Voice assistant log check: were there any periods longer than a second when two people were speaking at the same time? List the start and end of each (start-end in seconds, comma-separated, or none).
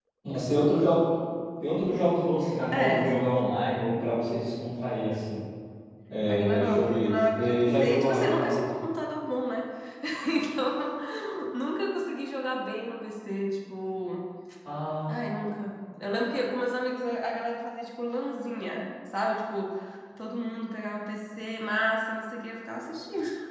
6.3-8.6